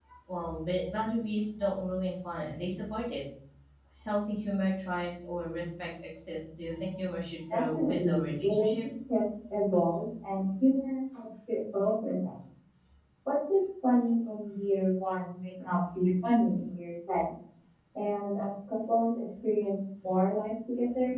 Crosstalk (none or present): present